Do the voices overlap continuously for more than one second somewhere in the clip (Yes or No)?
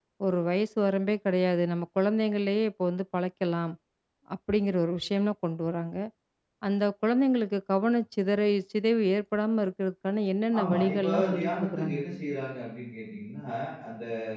Yes